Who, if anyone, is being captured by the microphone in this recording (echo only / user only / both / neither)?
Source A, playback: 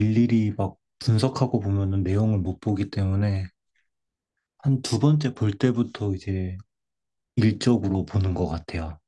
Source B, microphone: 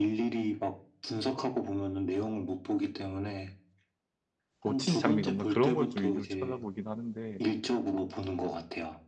both